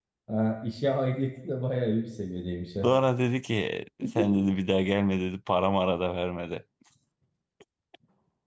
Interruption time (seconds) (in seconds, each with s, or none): none